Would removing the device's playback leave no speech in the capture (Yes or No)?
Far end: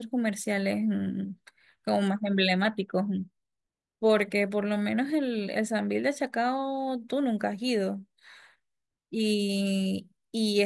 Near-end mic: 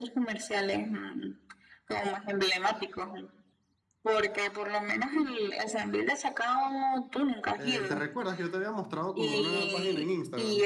No